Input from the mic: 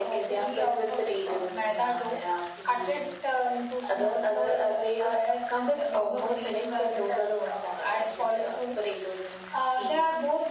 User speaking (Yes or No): No